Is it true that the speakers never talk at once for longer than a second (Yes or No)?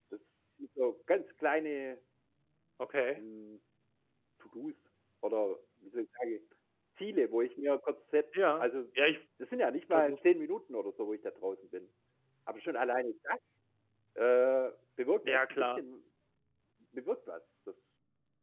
Yes